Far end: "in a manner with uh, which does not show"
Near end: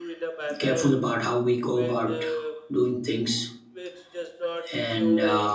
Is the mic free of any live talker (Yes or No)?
No